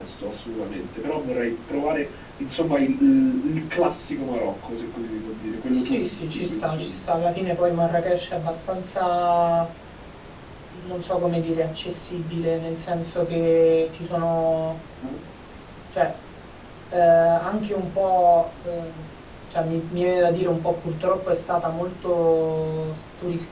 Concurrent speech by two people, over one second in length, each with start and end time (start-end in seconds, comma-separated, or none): 5.7-7.0